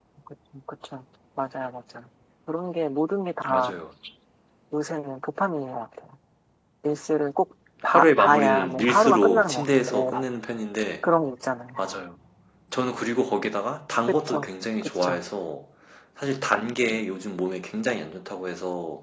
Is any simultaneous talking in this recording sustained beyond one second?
Yes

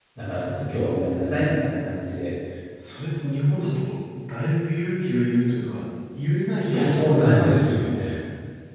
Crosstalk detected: Yes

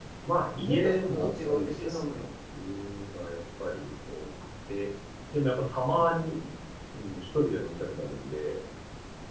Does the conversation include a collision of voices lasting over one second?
Yes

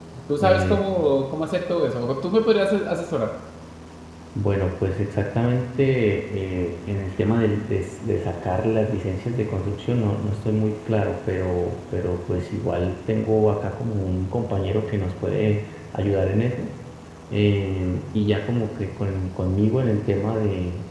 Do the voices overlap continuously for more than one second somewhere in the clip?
No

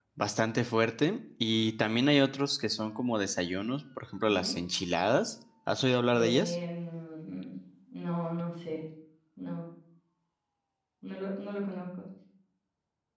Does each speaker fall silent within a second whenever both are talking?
Yes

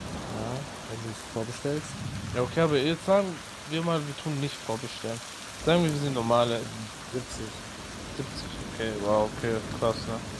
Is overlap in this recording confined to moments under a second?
Yes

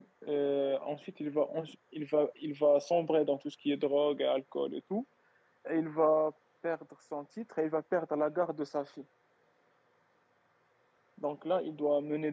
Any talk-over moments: No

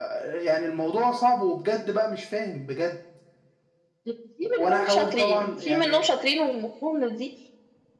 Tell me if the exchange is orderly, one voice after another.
No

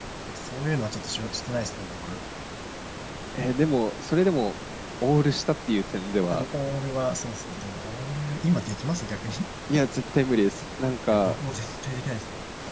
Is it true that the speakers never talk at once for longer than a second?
Yes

